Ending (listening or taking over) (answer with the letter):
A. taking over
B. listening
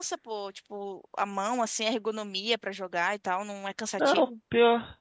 A